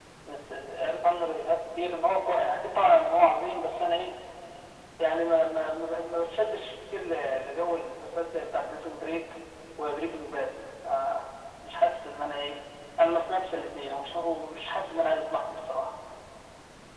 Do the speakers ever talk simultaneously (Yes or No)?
No